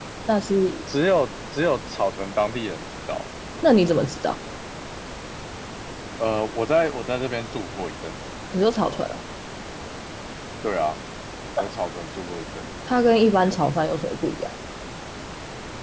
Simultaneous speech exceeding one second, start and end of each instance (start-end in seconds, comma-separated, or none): none